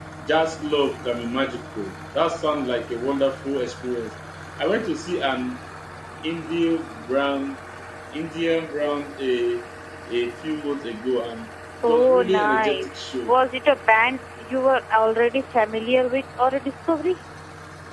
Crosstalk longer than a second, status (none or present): present